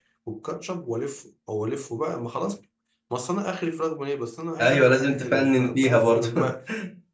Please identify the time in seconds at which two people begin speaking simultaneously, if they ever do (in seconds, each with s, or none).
4.6 s